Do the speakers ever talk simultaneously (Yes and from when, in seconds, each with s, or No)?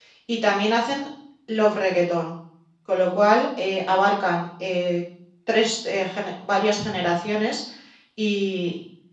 No